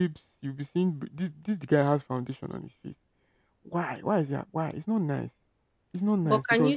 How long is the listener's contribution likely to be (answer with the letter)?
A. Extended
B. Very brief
A